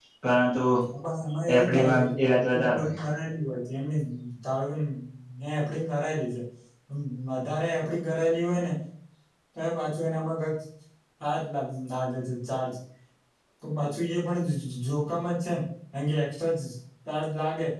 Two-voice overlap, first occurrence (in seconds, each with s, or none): 1.5 s